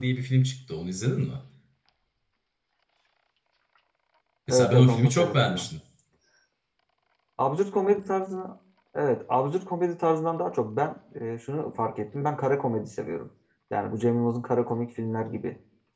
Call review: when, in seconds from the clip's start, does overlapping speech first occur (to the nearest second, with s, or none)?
4 s